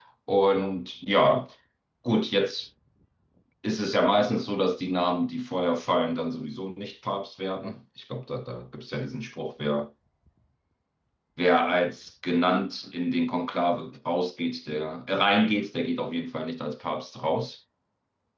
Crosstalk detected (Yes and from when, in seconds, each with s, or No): No